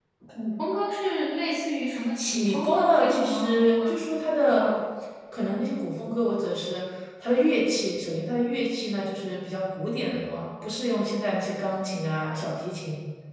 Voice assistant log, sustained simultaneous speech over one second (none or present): present